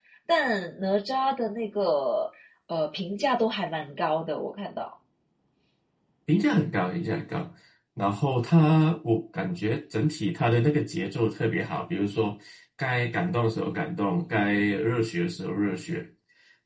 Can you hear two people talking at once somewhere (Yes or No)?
No